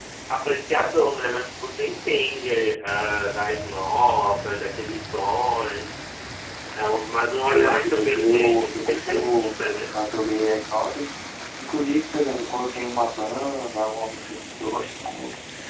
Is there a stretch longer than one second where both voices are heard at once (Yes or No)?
Yes